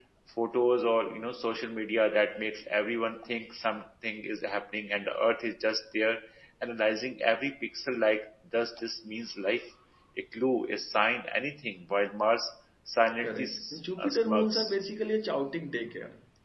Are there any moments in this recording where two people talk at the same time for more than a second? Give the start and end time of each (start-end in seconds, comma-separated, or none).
13.2-14.7